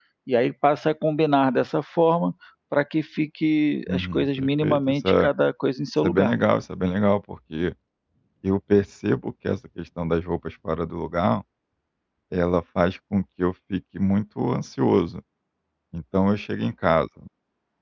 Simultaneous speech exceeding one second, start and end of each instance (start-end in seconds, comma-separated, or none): 3.9-5.3